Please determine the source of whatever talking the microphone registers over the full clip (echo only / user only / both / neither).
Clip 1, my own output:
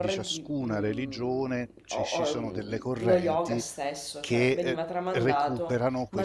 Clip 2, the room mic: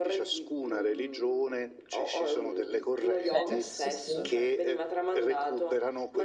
both